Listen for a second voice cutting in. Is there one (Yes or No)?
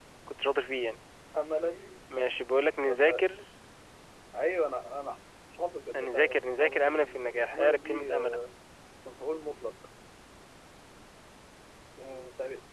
Yes